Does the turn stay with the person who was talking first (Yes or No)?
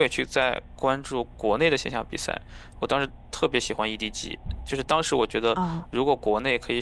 Yes